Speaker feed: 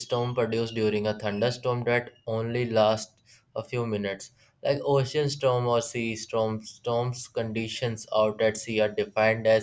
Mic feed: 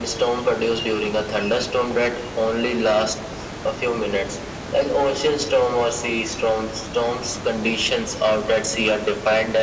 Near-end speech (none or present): none